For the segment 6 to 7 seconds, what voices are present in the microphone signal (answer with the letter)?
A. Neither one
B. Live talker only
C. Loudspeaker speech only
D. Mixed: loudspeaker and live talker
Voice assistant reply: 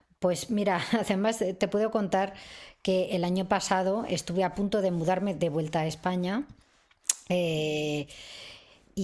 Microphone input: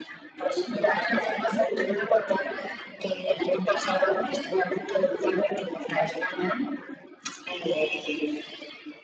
C